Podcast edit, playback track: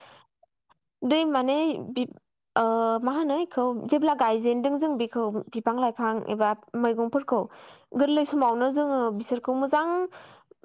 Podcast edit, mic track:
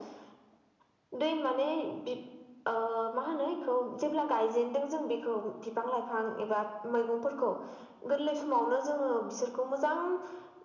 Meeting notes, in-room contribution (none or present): none